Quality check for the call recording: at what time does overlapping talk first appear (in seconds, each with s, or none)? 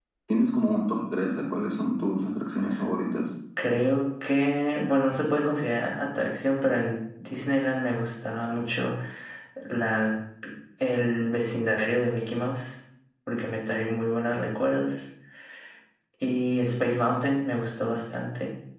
none